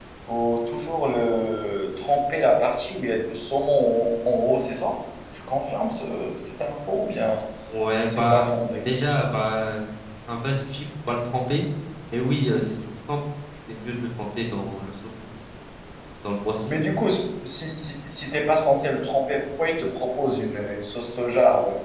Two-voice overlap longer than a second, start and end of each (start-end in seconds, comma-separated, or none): none